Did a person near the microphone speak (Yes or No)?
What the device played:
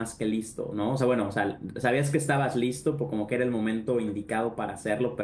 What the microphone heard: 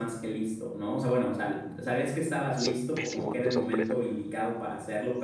Yes